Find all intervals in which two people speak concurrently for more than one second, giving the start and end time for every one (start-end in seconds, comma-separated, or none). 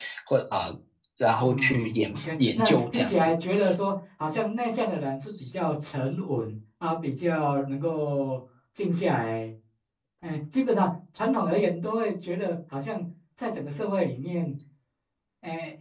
1.4-3.3